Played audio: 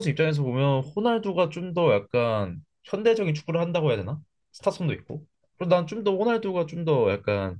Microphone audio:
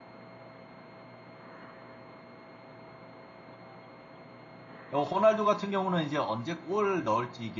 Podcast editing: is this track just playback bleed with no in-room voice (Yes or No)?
No